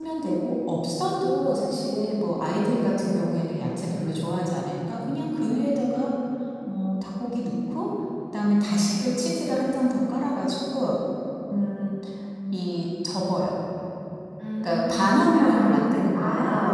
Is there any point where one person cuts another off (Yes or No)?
Yes